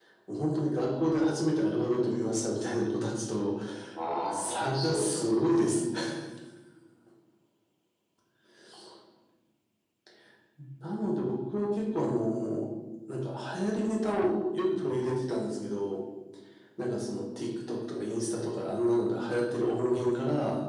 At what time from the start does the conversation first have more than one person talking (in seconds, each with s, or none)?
4.3 s